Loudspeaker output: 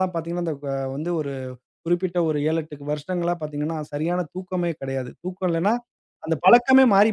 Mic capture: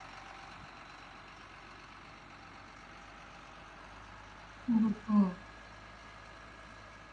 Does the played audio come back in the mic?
No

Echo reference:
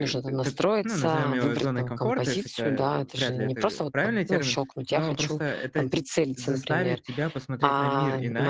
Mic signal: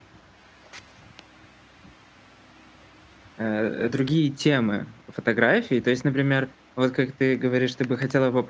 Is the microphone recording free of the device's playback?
Yes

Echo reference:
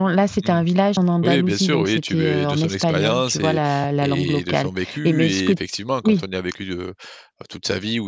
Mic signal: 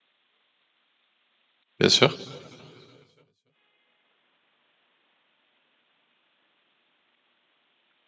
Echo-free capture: Yes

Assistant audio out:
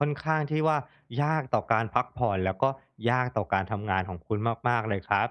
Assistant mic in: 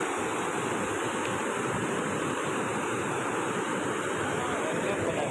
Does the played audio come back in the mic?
No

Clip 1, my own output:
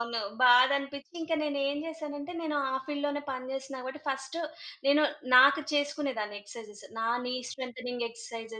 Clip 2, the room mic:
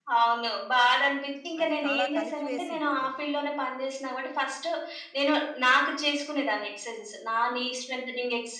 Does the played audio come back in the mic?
Yes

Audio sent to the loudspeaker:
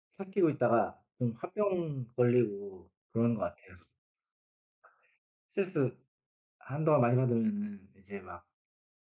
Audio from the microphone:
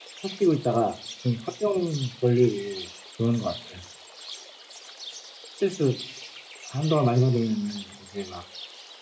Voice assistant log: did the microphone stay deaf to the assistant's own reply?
No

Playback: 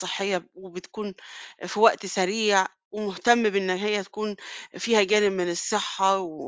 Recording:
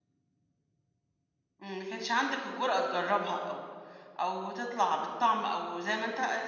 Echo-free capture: Yes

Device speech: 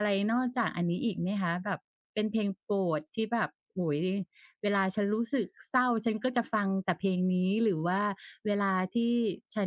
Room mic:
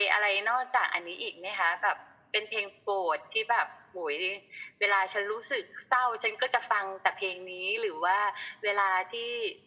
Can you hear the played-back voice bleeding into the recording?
Yes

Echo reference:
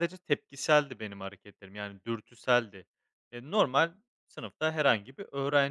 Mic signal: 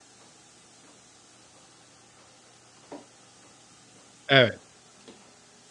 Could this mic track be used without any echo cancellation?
Yes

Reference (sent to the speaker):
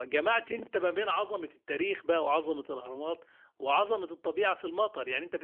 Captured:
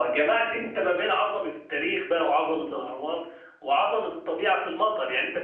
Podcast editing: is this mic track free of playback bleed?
No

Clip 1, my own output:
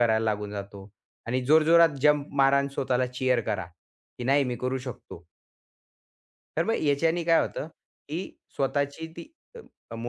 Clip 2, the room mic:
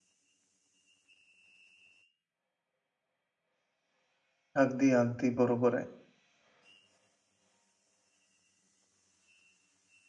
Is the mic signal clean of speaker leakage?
Yes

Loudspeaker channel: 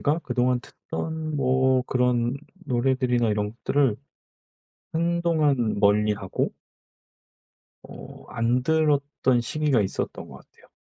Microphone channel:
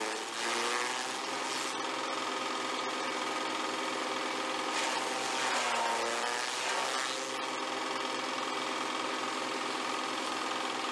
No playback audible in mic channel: Yes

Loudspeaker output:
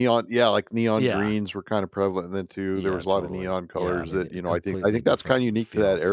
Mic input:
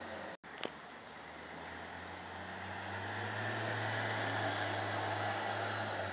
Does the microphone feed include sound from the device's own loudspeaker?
No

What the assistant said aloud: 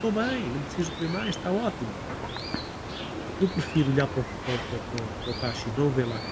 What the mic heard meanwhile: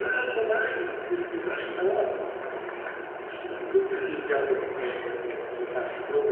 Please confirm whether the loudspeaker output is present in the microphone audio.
Yes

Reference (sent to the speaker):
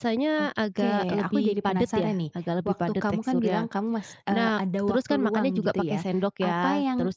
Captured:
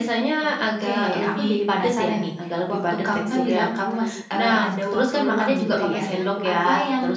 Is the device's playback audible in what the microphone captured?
Yes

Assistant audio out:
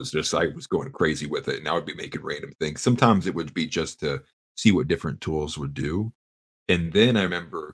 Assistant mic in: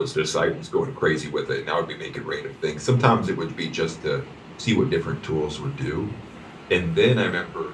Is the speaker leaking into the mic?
Yes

